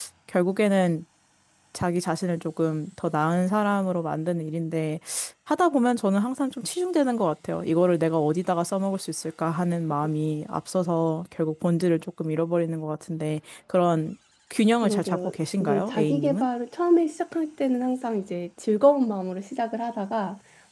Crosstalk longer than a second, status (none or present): present